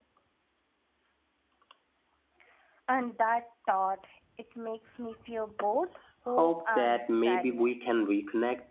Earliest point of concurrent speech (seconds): 6.3 s

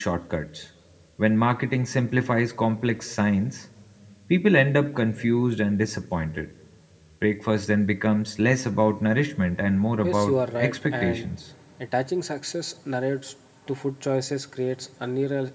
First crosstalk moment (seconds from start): 10.0 s

